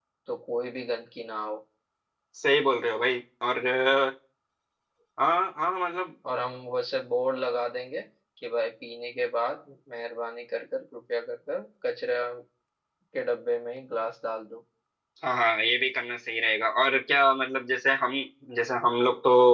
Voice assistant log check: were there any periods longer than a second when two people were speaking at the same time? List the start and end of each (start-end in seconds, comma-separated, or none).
none